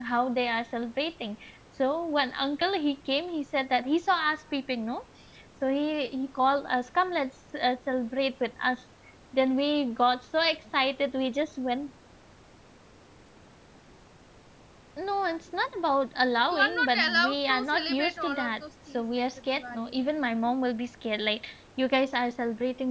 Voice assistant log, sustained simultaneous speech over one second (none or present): present